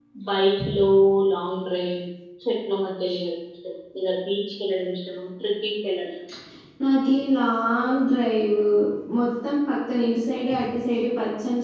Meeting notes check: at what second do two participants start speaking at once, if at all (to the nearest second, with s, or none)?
none